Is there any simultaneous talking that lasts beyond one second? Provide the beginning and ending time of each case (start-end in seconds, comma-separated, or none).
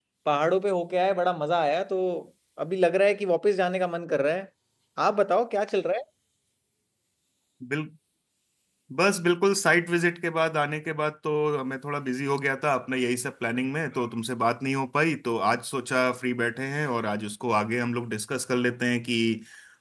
none